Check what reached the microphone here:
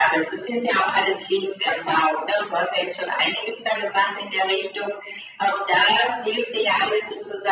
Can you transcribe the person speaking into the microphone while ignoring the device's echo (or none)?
none